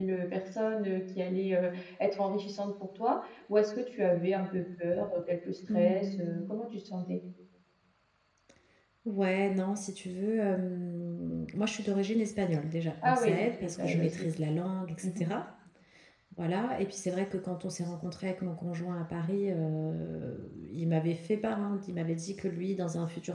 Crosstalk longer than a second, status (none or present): present